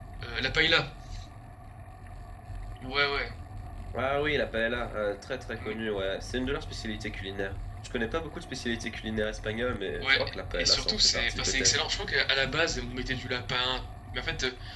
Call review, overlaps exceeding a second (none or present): present